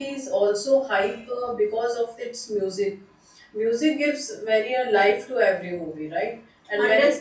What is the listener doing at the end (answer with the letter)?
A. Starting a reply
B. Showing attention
A